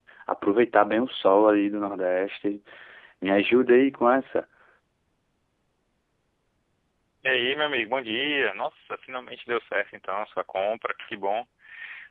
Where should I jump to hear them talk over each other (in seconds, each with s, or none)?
none